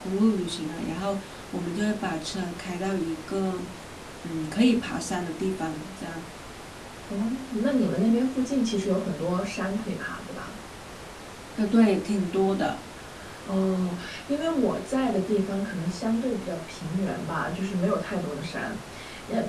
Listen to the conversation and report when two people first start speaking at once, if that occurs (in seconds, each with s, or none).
none